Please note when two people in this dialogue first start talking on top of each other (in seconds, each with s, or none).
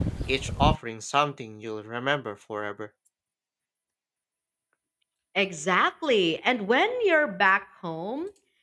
none